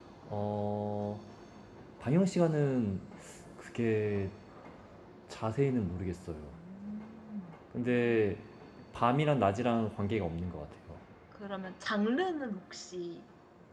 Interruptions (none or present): none